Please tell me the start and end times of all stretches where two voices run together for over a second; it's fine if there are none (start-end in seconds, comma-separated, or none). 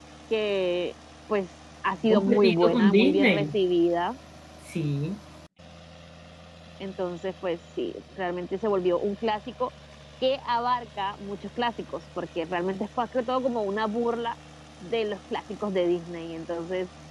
2.0-3.6